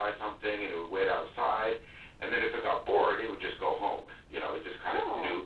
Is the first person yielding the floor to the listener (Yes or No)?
No